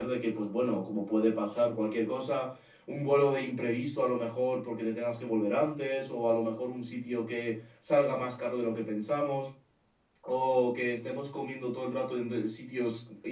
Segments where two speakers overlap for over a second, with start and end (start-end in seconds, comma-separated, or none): none